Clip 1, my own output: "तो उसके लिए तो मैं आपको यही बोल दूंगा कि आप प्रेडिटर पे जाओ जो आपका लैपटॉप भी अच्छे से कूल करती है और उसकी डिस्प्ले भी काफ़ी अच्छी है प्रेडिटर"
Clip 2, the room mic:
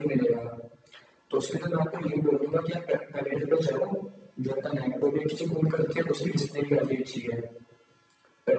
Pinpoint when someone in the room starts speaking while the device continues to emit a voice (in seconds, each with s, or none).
none